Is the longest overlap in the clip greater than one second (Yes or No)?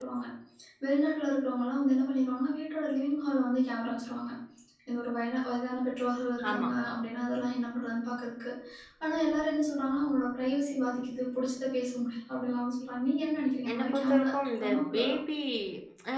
Yes